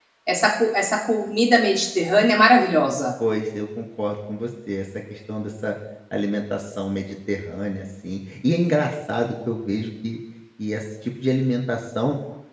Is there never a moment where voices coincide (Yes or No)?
Yes